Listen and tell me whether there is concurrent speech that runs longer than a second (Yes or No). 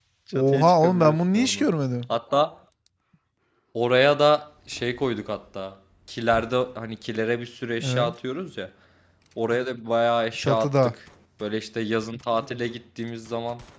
Yes